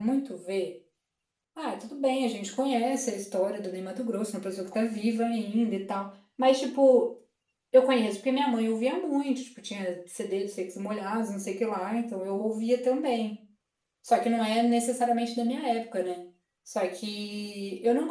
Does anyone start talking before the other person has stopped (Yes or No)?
No